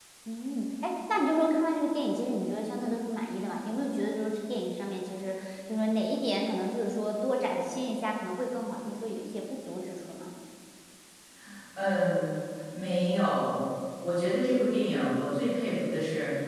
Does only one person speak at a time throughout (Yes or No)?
Yes